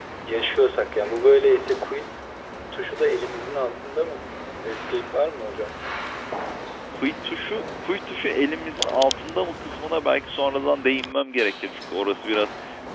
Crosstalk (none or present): none